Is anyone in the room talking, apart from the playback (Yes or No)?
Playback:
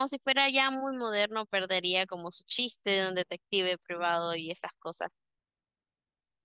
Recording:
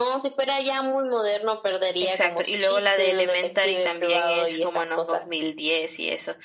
Yes